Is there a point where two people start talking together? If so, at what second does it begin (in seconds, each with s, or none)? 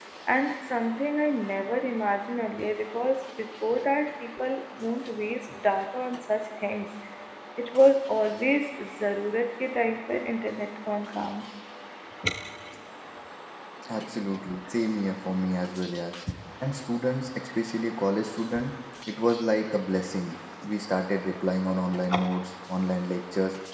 none